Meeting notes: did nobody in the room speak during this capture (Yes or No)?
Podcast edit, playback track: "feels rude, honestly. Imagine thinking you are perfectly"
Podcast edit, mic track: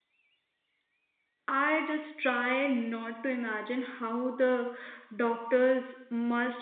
No